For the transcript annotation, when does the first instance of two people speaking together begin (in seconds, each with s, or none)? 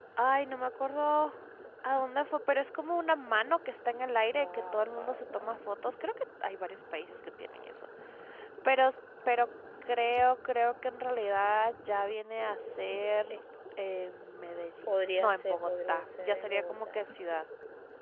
4.3 s